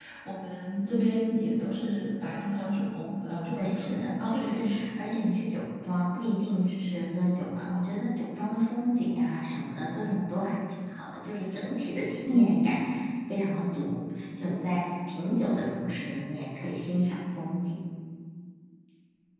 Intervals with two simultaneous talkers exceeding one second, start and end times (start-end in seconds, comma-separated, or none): 3.6-4.9